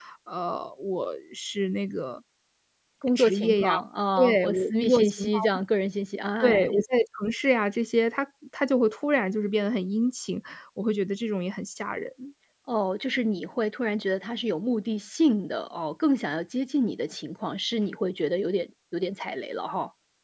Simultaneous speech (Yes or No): Yes